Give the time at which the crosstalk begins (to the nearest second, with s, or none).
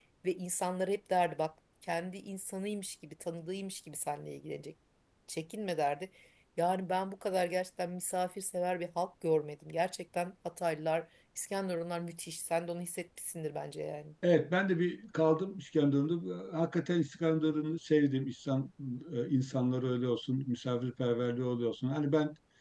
none